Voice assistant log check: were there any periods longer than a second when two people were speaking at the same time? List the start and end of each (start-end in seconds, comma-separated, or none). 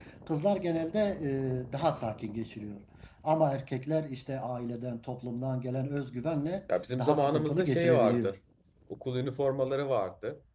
7.0-8.3